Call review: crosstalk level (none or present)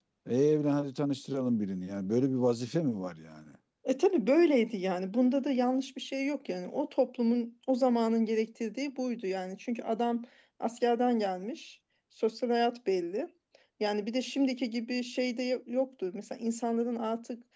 none